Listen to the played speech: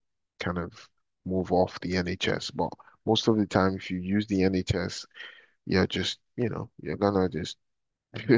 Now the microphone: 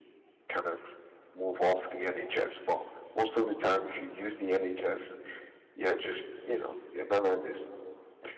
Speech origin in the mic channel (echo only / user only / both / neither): echo only